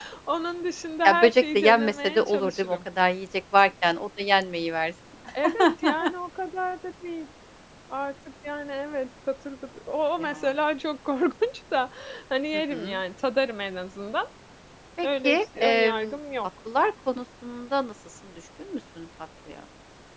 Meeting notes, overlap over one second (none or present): present